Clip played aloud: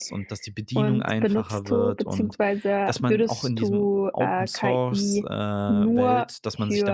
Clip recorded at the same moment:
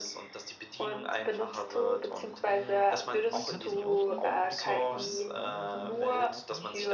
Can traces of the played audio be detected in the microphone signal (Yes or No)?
Yes